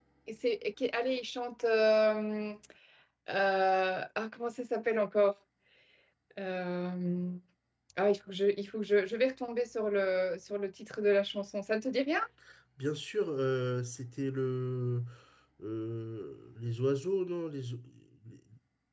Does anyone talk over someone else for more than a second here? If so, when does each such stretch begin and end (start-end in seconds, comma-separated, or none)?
none